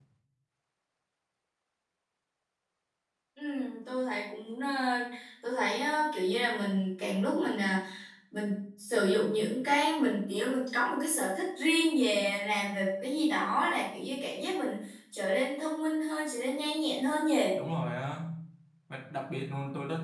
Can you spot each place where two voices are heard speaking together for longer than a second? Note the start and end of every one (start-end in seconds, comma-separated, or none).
none